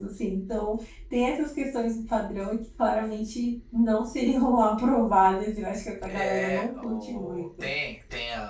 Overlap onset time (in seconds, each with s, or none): 6.1 s